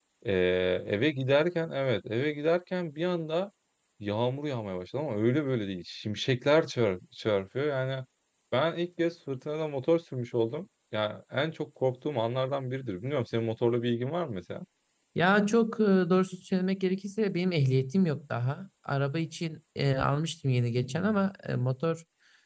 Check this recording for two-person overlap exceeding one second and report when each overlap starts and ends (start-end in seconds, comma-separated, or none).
none